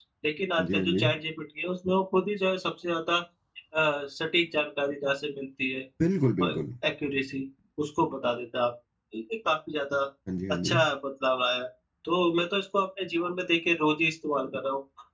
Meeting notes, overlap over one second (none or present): none